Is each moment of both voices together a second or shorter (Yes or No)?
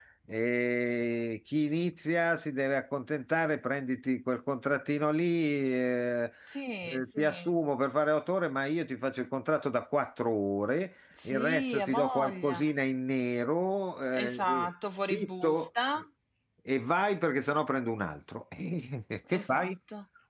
No